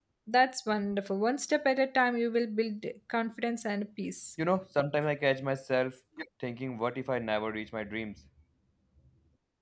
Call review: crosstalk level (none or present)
none